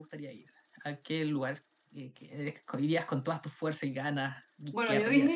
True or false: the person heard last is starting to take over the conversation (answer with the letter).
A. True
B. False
A